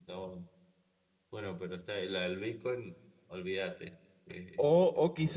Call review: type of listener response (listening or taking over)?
taking over